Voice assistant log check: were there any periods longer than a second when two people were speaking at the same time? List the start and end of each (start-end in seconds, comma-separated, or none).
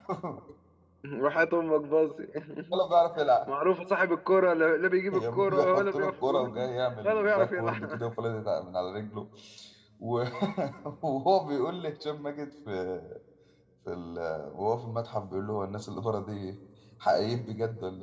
5.1-8.1